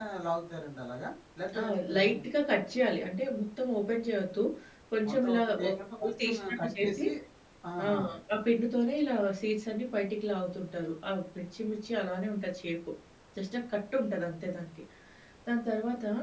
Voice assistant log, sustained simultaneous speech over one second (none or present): present